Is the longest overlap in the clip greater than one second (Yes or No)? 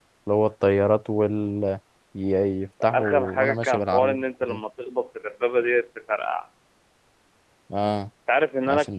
Yes